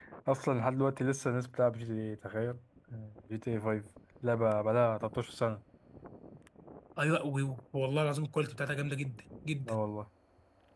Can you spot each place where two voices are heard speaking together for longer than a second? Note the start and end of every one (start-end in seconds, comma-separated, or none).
none